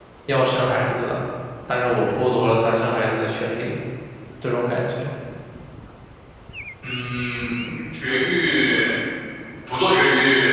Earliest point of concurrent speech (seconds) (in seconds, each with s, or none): none